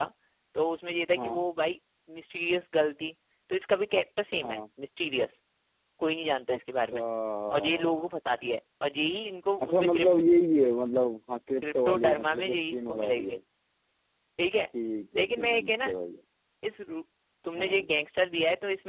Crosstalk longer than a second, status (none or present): present